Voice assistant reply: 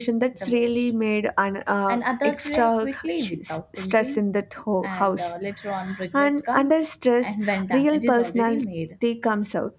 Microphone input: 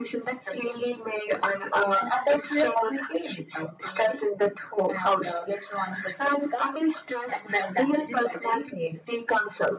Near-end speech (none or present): none